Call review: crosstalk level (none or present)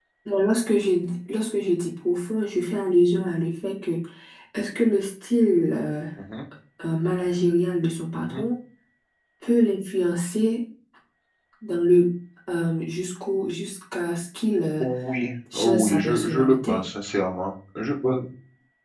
present